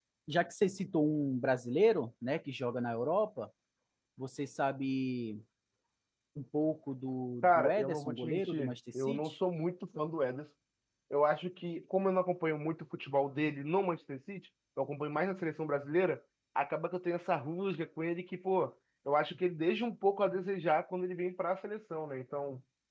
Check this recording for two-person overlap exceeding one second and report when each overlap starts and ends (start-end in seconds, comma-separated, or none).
7.4-9.3